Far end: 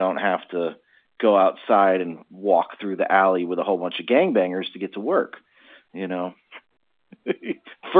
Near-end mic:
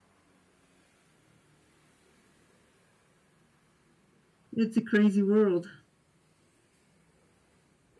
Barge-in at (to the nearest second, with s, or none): 5 s